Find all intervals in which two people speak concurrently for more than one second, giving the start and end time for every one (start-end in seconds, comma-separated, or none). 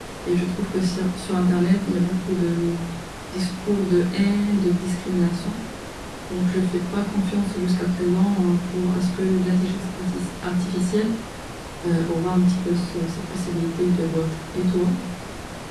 none